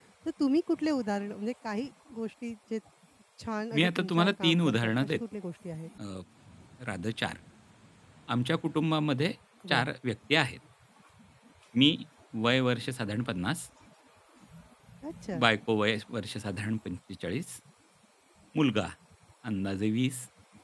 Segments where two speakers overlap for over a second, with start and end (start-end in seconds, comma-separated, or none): 3.7-5.2